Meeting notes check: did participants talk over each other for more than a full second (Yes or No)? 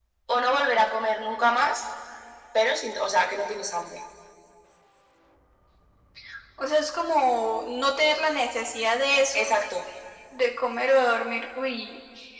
No